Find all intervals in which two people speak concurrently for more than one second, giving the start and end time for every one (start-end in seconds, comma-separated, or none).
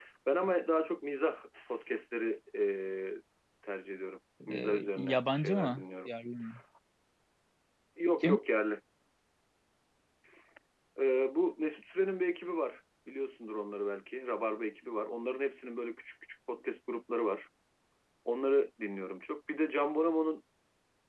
4.5-6.1